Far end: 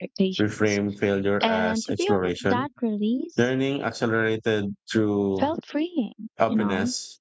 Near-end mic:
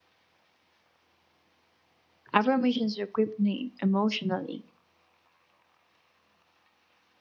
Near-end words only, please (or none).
affirmations equip me emotionally.